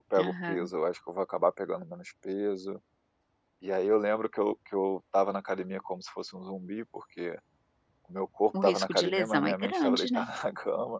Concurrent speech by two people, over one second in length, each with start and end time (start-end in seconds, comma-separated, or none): 8.6-10.2